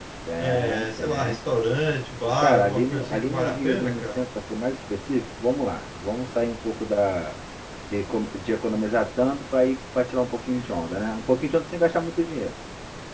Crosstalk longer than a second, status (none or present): present